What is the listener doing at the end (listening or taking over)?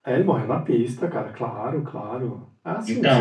taking over